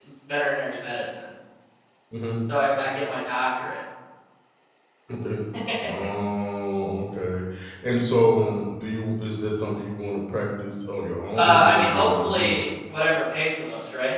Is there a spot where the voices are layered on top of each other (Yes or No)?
Yes